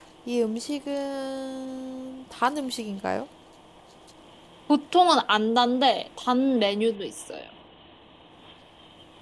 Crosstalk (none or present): none